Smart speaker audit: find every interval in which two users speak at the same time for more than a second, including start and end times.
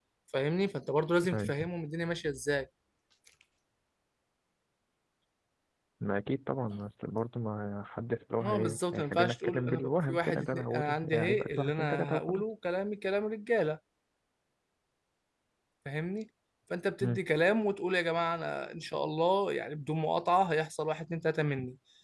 8.4-12.4

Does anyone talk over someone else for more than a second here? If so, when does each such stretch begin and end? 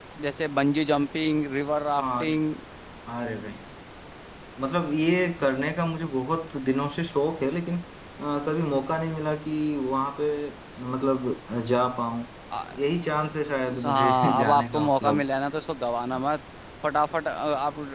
13.8-15.2

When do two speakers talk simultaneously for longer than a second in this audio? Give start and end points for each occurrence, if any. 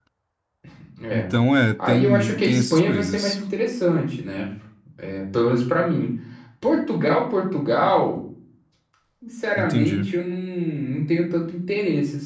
1.8-3.4

